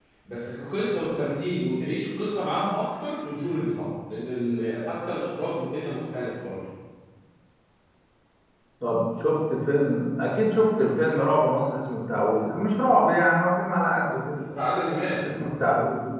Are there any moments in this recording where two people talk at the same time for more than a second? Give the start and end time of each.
none

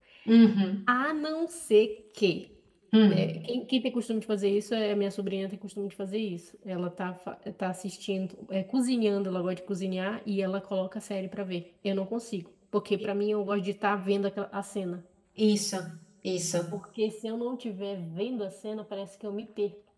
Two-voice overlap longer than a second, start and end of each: none

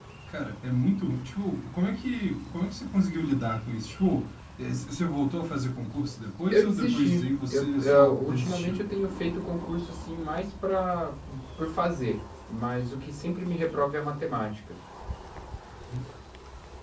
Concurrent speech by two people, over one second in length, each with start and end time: 6.5-8.8

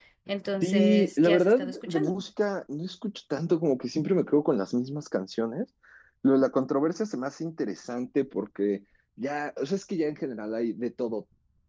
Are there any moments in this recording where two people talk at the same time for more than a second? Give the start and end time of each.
0.6-2.1

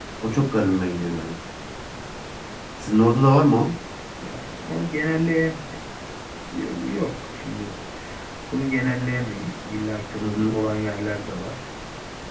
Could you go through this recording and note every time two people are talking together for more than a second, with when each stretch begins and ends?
none

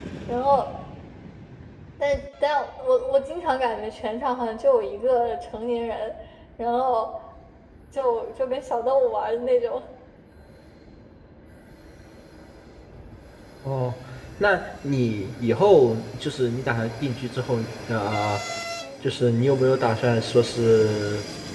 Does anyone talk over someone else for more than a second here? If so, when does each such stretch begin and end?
none

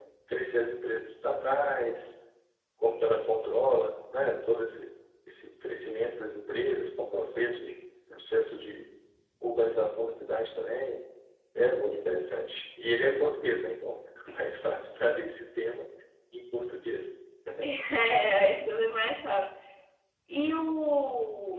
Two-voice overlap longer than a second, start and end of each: none

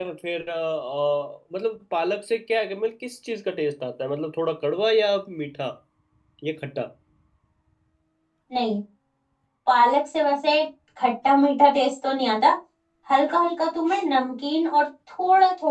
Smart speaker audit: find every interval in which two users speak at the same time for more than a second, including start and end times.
none

